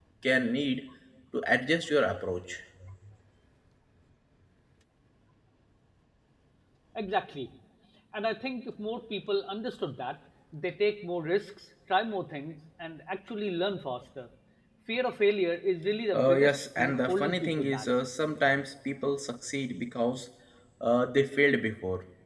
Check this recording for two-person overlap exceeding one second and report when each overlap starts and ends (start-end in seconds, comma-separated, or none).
16.2-17.9